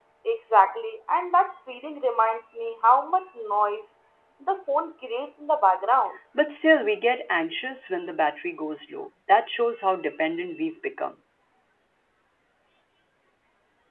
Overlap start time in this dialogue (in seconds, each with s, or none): none